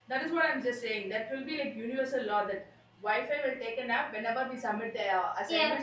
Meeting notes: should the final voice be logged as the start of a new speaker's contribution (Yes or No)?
Yes